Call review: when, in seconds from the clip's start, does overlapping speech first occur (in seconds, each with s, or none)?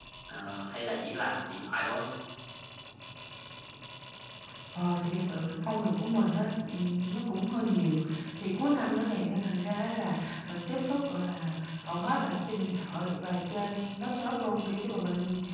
none